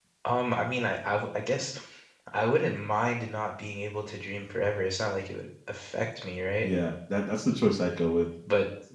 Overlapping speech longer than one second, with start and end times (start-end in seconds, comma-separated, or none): none